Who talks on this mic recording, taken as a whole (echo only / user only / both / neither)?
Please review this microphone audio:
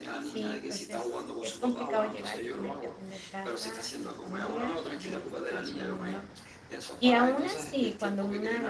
both